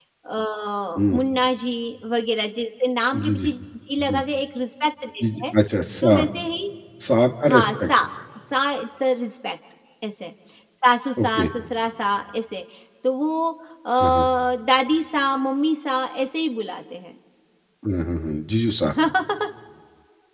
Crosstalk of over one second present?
No

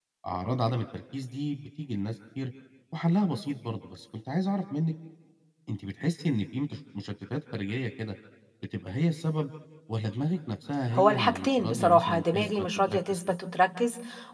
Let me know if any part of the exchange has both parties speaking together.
Yes, from 10.9 s

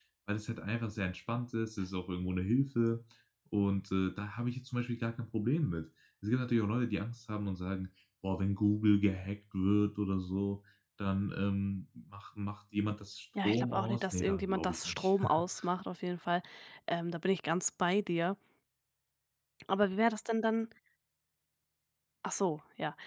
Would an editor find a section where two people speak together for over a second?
Yes, from 13.3 s

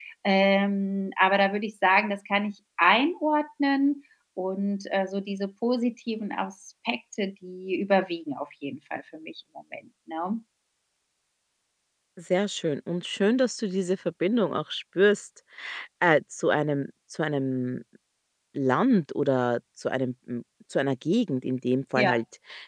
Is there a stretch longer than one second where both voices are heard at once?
No

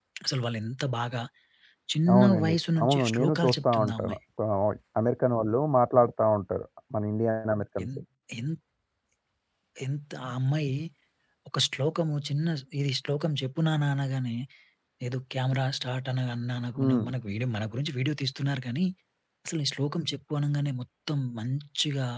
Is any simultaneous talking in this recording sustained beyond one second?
Yes, from 2.1 s

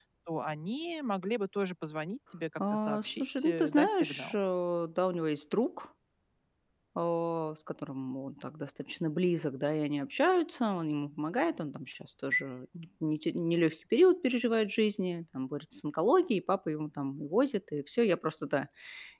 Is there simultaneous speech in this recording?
Yes, from 2.6 s

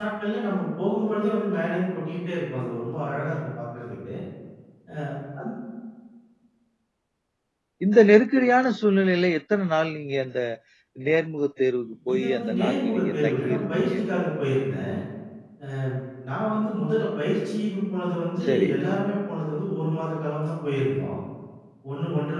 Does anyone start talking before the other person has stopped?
Yes, from 12.1 s

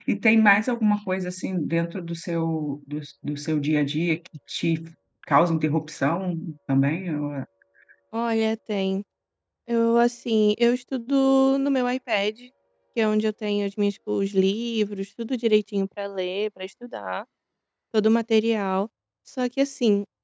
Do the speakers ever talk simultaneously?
No

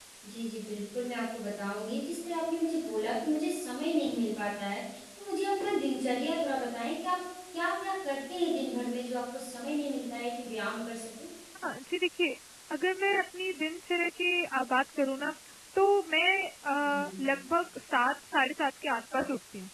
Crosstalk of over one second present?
No

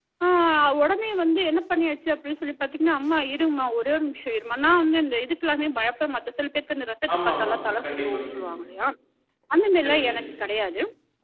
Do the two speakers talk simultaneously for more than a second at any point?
Yes, from 7.2 s

